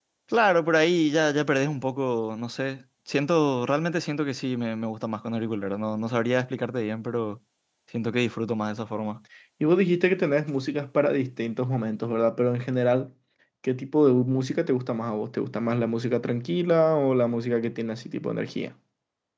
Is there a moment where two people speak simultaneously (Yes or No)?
No